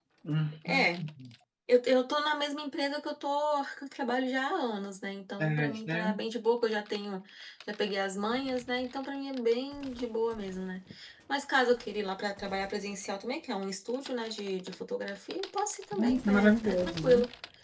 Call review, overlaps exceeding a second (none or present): present